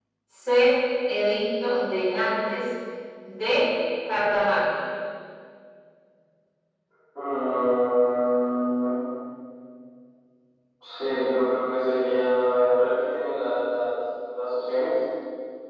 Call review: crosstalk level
none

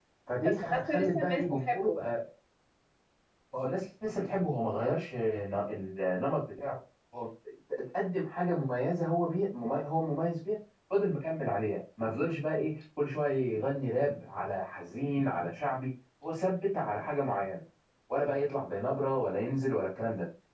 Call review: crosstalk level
present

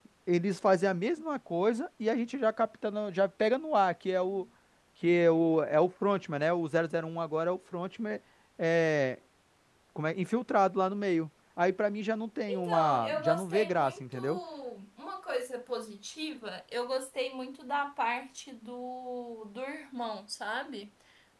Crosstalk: present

